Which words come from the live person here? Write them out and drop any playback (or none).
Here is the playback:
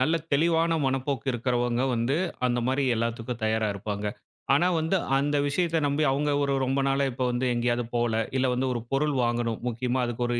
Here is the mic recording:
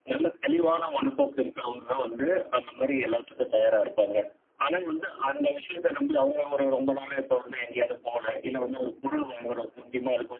none